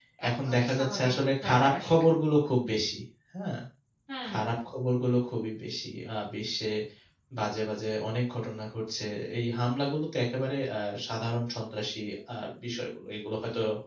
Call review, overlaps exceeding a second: present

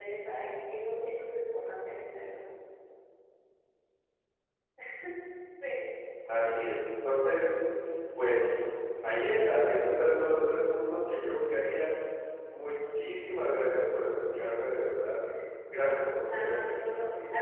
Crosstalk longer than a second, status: present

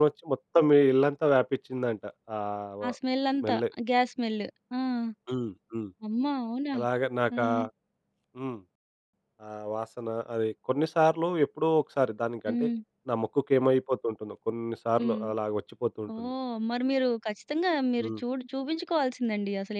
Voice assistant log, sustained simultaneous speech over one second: none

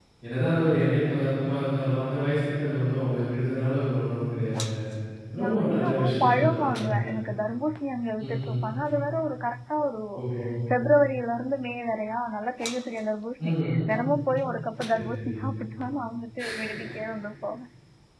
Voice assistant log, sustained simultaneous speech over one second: present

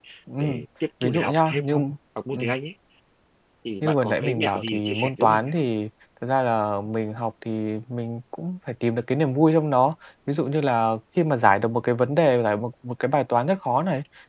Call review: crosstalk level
present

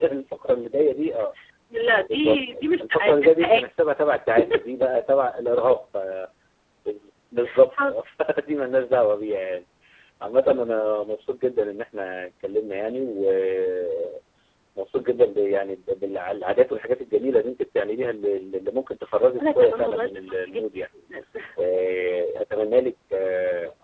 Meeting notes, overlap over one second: present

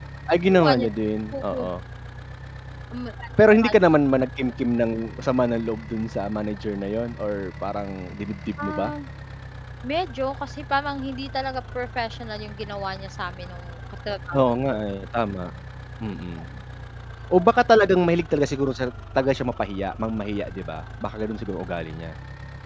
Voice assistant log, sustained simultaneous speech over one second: none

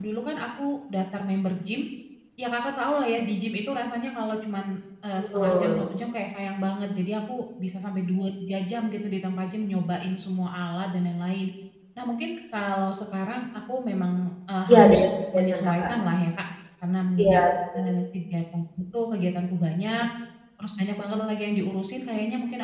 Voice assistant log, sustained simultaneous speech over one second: present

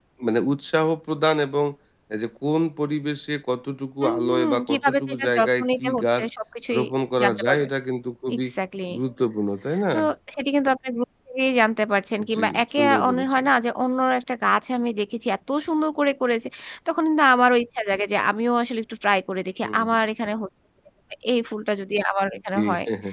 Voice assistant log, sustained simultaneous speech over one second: present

